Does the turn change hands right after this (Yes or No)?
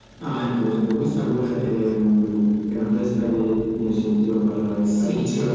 Yes